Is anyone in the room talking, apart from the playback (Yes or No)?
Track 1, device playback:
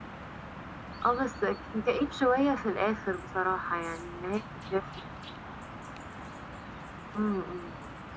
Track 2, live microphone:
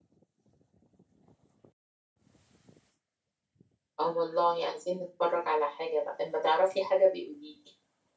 Yes